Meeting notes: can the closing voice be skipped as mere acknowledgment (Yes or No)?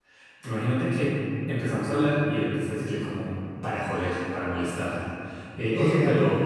No